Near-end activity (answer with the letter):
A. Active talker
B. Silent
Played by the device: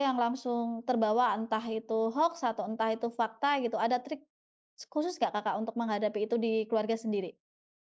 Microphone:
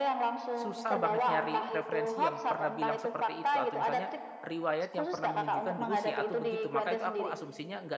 A